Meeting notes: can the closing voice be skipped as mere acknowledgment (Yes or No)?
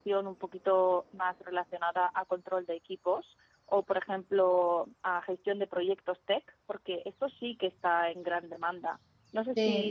No